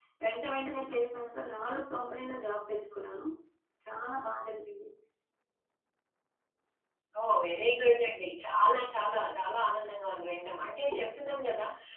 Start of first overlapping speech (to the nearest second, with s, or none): none